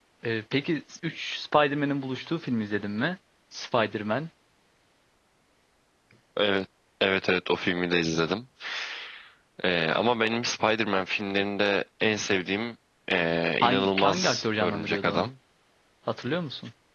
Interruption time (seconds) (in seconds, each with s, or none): 13.6 s